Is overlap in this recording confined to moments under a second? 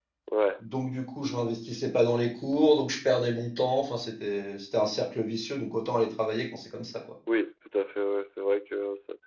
Yes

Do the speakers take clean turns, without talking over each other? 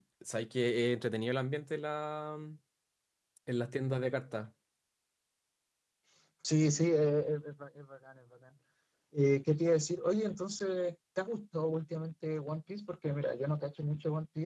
Yes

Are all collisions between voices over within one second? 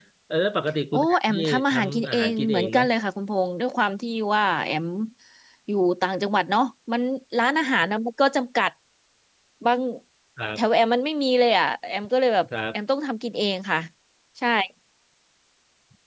No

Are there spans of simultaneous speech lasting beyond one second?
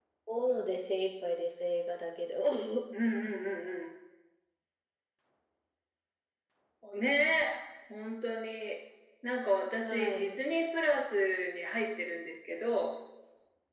No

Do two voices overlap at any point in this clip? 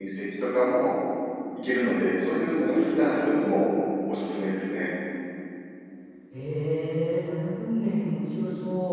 No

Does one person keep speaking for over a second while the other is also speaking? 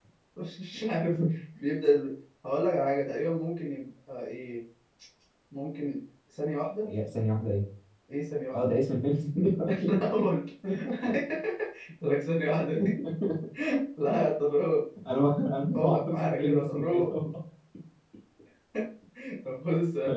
Yes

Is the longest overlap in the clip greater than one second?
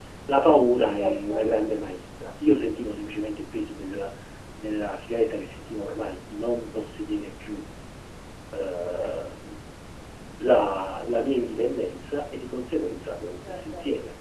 No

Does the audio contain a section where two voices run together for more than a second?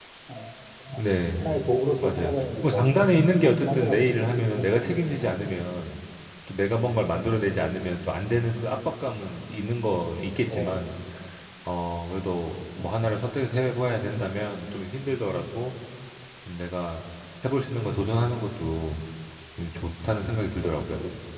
Yes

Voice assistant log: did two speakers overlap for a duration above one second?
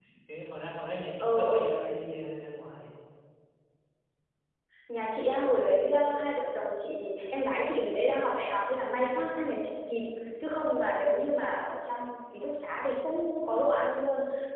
No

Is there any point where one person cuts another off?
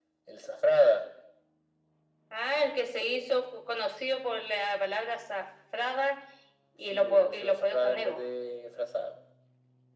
Yes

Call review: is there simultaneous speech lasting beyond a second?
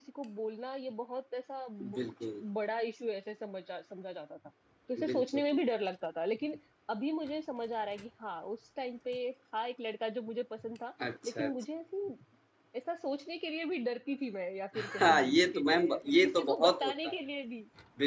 Yes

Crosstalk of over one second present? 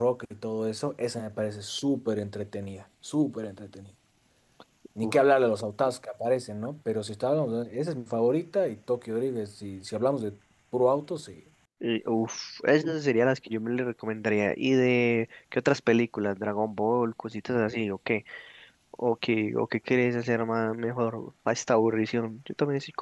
No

